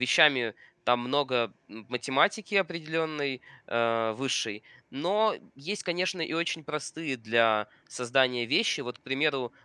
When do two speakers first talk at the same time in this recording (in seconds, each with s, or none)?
none